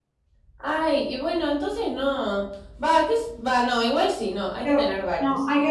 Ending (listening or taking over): taking over